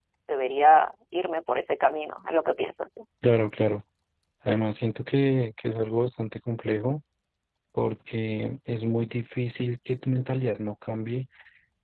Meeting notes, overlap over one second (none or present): none